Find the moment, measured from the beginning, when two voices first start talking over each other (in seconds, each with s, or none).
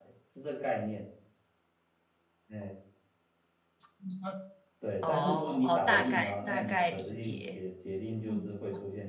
5.0 s